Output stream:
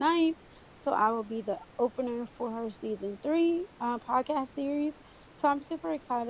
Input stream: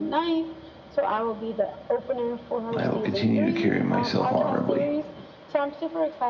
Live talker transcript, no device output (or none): I will continue to carry myself honorably.